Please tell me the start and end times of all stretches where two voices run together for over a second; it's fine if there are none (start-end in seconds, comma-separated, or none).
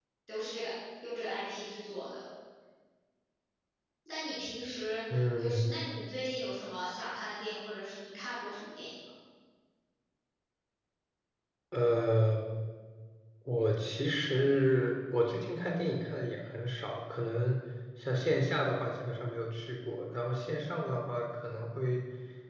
none